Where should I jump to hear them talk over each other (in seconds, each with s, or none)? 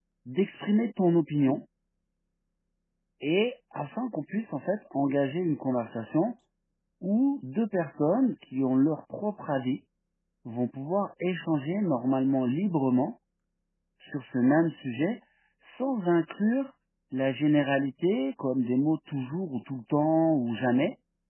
none